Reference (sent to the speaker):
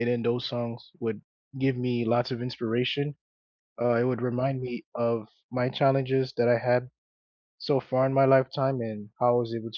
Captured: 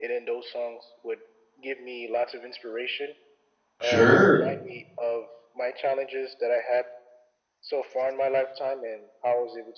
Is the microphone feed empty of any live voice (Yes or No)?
No